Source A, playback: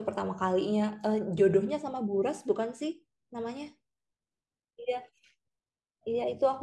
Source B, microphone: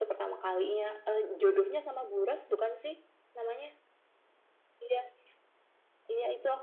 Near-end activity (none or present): none